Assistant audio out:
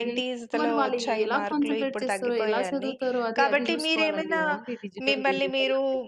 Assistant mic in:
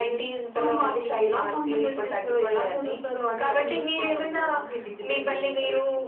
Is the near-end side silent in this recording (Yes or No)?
Yes